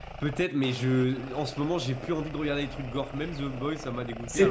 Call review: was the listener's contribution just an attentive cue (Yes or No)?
No